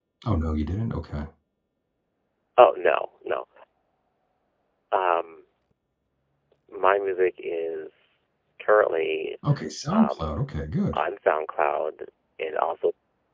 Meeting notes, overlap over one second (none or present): none